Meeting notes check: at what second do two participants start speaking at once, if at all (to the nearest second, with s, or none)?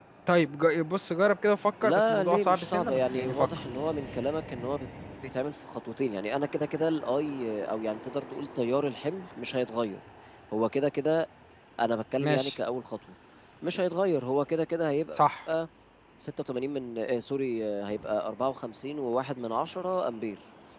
2 s